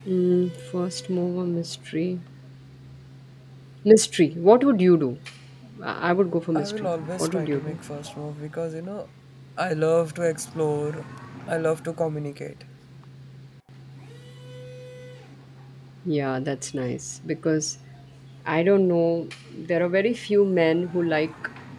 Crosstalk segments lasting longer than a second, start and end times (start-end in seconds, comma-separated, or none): 6.5-7.8